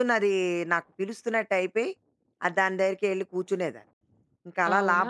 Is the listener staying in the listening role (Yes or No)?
No